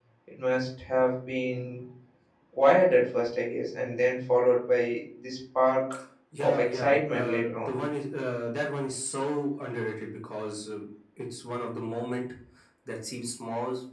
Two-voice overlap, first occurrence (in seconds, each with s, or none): 6.4 s